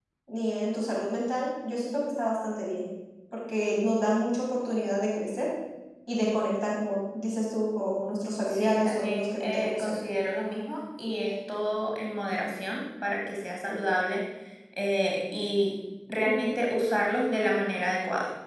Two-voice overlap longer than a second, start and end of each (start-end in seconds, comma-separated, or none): 8.5-9.9